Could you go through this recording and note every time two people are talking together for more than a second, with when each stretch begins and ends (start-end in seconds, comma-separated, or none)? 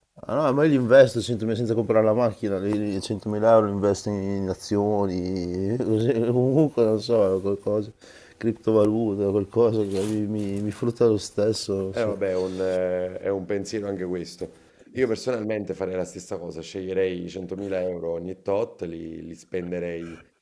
none